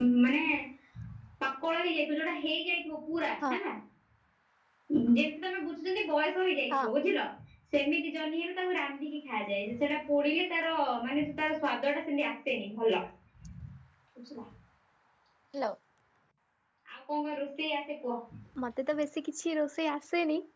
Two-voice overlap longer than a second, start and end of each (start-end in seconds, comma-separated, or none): none